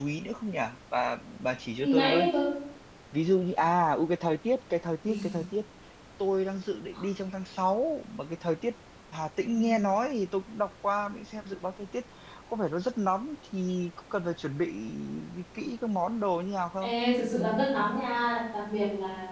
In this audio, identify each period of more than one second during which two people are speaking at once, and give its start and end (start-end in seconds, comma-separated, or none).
none